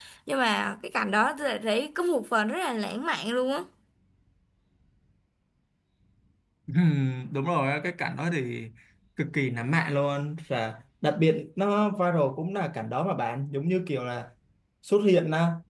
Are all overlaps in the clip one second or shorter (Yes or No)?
Yes